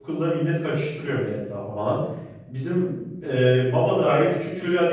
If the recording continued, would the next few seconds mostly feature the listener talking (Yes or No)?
No